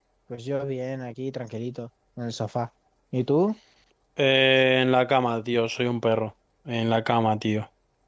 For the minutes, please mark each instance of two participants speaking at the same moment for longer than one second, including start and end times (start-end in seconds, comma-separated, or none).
none